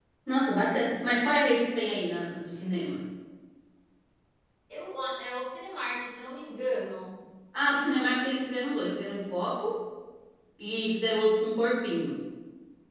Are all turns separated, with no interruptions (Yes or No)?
Yes